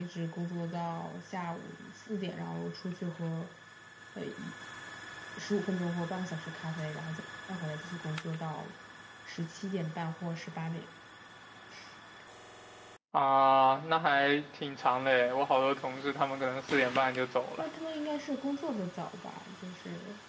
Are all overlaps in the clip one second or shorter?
Yes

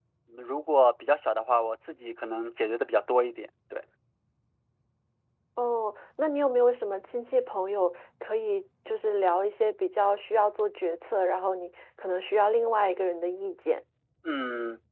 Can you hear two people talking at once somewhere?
No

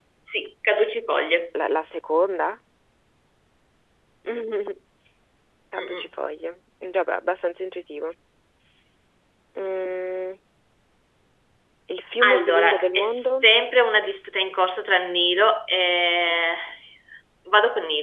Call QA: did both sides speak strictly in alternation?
No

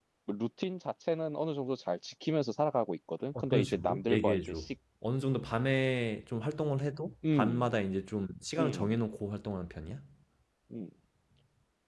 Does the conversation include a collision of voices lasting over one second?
Yes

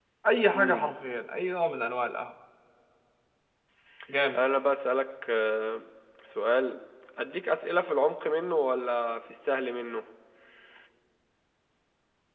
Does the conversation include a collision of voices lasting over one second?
No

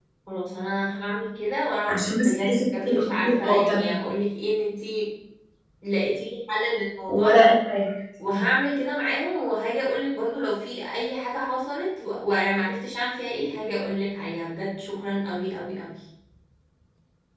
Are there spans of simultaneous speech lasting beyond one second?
Yes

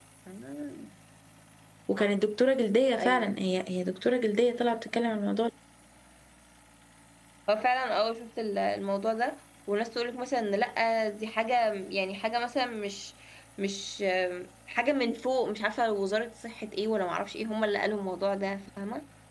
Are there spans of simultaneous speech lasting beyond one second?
No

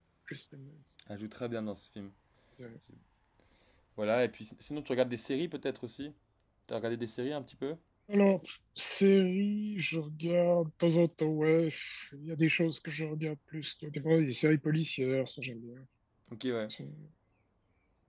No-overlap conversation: Yes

